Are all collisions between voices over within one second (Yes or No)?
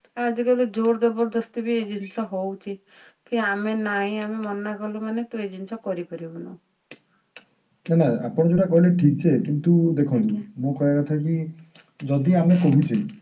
Yes